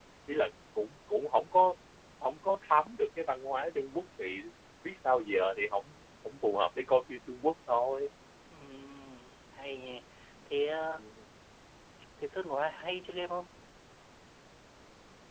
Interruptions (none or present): none